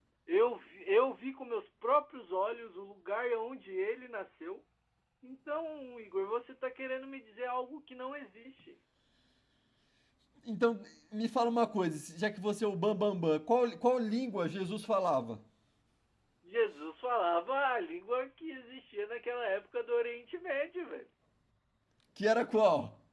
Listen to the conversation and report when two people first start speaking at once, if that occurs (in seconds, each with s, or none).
none